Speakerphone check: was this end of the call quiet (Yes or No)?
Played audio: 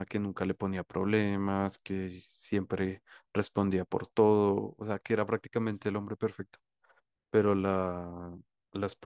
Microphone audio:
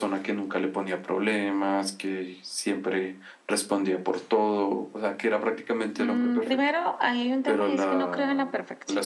No